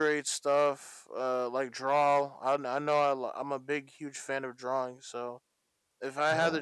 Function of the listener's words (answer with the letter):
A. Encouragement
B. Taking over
A